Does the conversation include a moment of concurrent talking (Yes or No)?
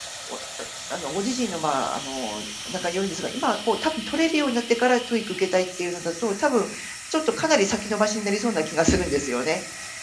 No